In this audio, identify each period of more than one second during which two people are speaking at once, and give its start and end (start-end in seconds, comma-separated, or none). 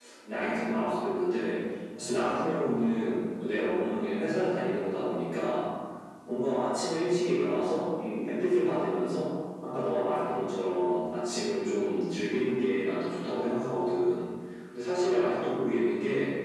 none